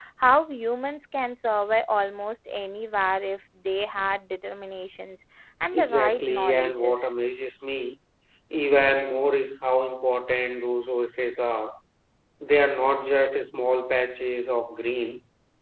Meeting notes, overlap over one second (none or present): present